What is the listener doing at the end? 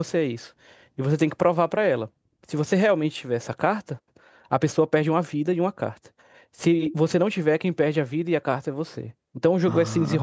listening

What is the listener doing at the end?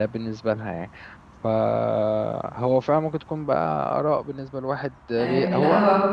taking over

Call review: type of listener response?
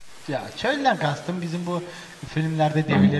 listening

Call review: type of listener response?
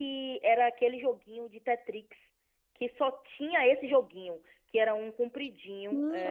taking over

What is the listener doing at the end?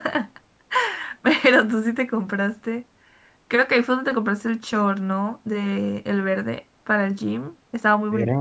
taking over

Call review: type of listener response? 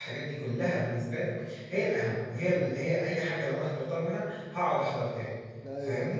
taking over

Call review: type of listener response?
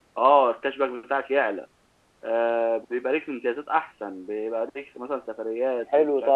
taking over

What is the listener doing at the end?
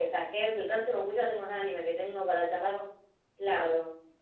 taking over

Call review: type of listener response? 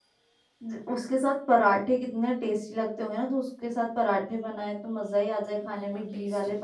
listening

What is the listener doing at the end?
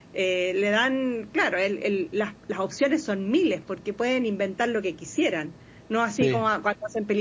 listening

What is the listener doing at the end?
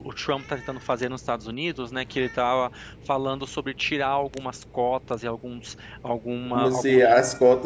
taking over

